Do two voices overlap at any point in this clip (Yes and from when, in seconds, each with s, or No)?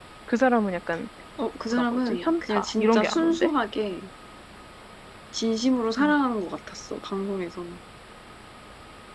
Yes, from 1.7 s